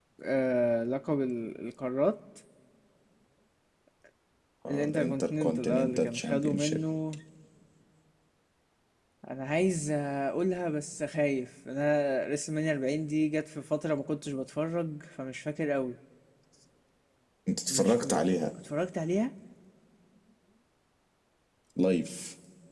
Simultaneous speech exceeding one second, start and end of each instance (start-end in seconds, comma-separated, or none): 4.7-6.8